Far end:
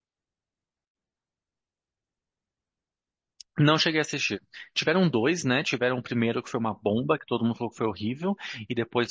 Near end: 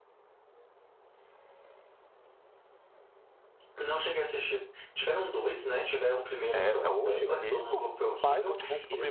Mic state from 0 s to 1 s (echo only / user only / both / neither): neither